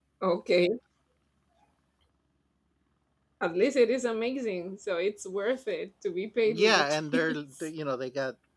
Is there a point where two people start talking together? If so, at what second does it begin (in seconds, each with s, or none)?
6.5 s